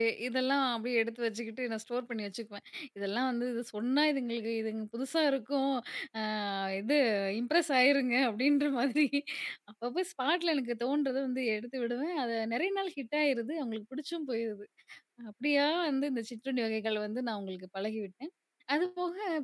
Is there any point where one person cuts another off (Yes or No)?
No